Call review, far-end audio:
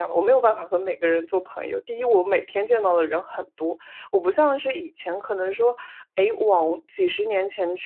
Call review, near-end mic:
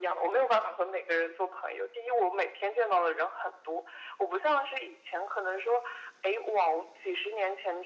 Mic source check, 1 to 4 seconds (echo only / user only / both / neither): echo only